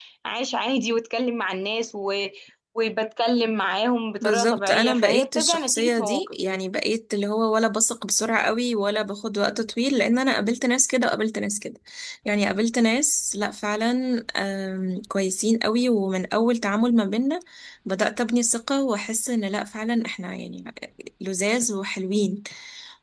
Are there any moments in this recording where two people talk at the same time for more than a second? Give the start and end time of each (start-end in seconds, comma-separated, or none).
4.2-6.4